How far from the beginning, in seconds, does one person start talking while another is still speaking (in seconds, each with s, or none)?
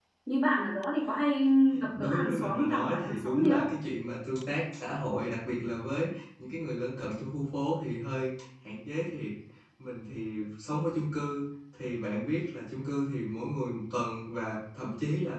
2.0 s